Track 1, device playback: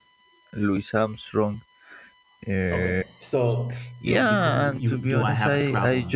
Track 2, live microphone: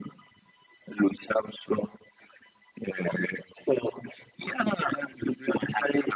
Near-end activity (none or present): none